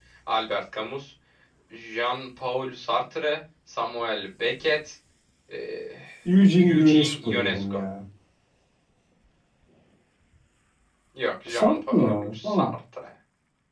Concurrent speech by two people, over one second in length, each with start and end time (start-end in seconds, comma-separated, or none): 6.5-7.8, 11.5-12.7